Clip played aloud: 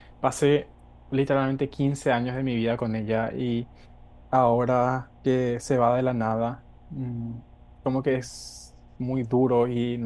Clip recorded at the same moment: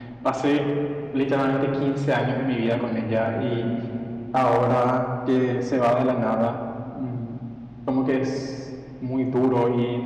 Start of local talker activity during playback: none

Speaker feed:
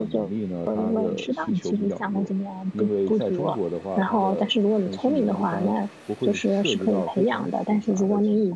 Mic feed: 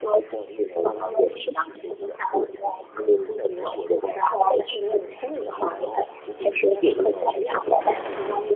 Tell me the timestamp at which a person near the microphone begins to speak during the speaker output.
none

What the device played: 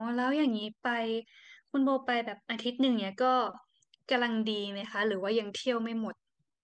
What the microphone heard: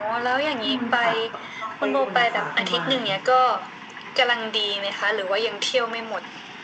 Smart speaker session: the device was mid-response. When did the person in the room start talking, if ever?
0.6 s

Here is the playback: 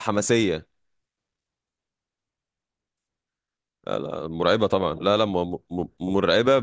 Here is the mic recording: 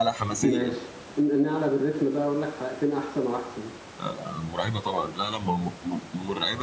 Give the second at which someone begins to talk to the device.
0.4 s

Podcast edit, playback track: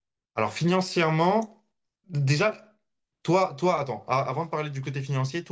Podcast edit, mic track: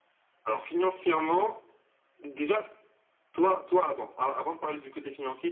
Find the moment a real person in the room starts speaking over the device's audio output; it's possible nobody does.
none

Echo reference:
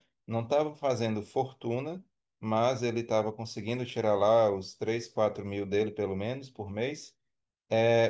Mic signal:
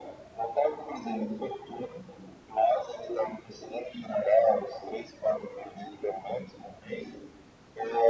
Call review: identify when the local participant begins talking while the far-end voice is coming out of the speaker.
none

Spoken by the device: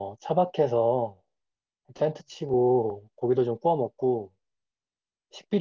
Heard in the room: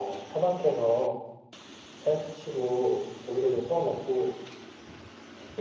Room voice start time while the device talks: none

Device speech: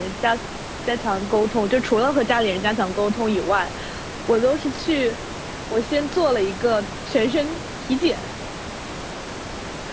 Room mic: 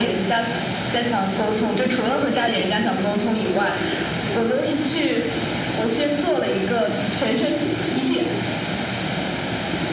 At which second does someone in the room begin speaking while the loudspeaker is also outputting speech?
none

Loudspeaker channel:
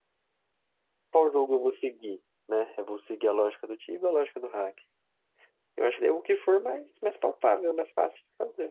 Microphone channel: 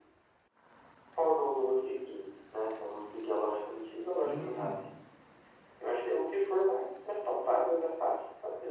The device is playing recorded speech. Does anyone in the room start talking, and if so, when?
4.2 s

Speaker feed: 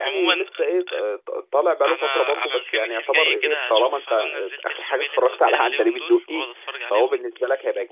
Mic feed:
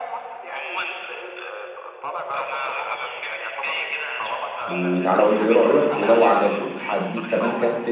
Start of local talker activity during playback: 4.7 s

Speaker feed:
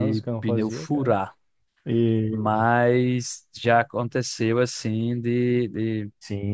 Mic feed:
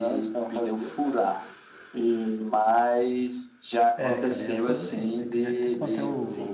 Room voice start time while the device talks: 4.0 s

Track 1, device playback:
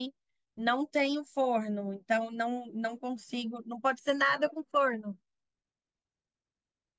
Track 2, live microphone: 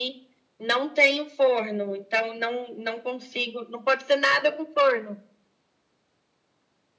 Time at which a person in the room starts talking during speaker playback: none

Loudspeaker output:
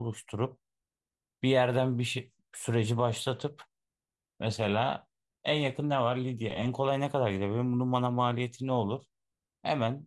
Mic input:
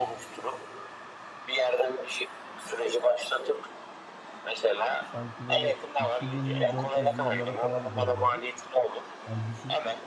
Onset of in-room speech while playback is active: 5.0 s

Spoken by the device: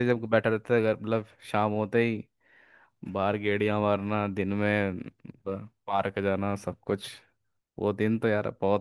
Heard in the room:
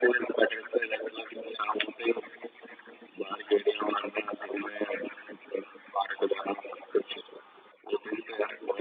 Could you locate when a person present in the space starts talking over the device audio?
none

